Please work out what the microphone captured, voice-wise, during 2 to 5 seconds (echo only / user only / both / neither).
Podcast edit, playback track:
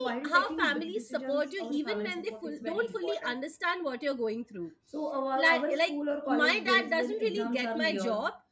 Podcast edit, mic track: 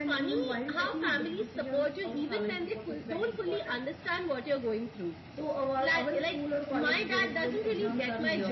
echo only